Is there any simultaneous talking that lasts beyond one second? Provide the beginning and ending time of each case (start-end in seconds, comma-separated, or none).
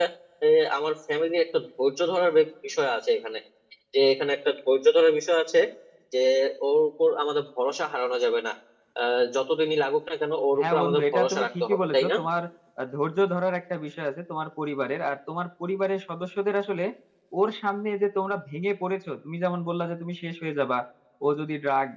10.6-12.2